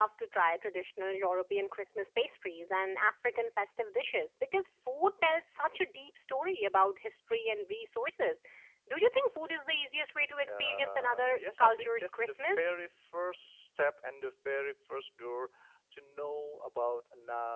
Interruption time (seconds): 10.4 s

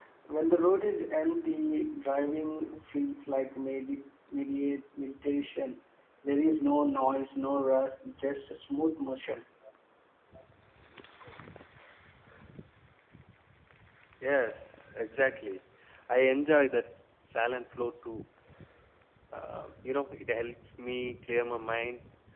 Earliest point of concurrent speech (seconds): none

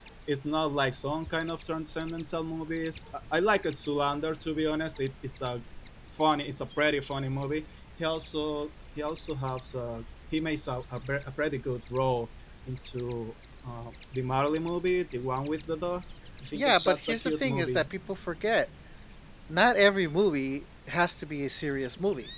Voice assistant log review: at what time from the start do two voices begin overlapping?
16.5 s

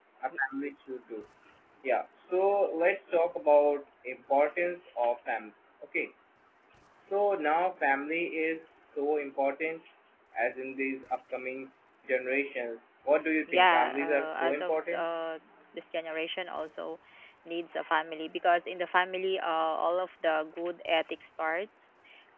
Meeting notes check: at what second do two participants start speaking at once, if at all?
13.5 s

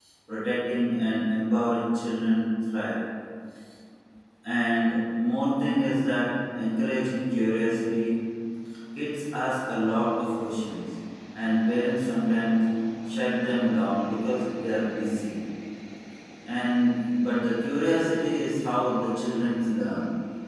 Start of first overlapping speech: none

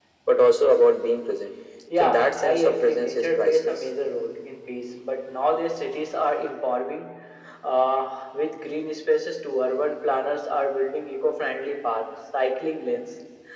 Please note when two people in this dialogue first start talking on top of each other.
1.9 s

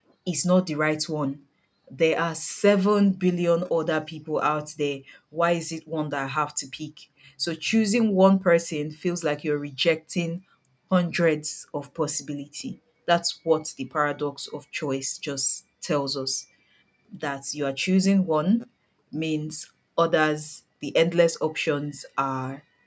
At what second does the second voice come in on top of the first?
none

